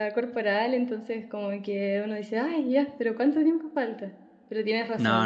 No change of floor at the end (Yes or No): Yes